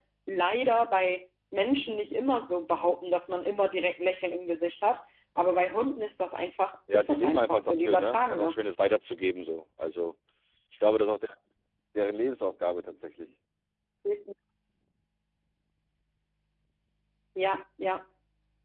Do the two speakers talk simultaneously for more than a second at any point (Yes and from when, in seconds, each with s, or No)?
Yes, from 6.9 s